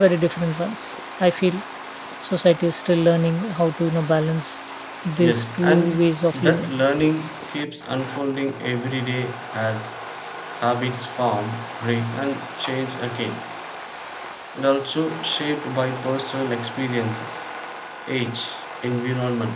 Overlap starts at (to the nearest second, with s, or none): 5 s